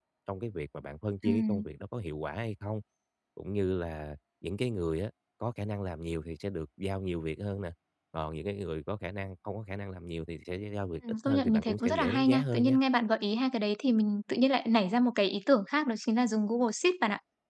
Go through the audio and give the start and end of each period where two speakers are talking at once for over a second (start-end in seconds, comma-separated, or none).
11.2-12.8